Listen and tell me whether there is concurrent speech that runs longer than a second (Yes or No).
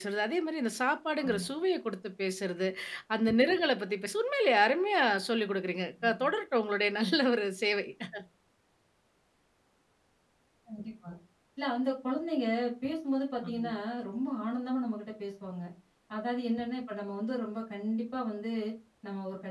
No